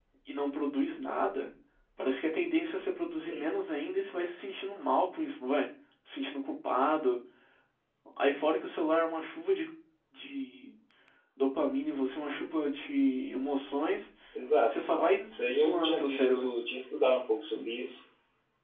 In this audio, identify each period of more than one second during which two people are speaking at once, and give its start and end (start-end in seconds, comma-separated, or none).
14.7-16.5